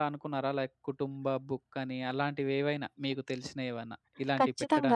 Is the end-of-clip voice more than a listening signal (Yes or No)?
Yes